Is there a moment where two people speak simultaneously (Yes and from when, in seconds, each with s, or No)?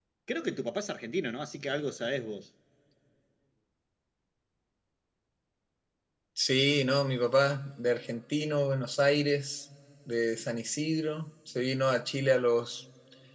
No